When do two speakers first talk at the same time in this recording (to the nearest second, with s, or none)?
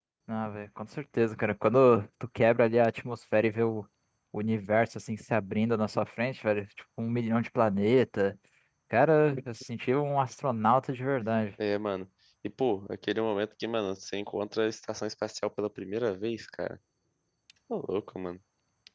none